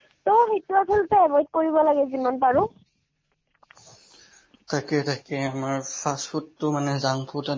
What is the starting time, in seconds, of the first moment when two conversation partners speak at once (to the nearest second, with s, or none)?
none